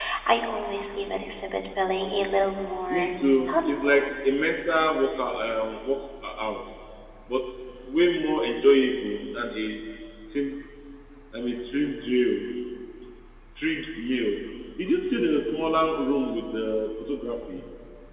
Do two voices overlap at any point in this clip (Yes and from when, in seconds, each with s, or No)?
Yes, from 2.9 s